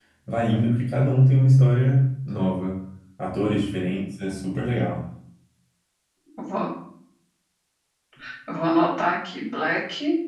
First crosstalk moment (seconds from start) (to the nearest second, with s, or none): none